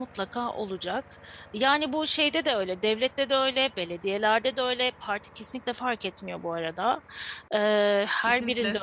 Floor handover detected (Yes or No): No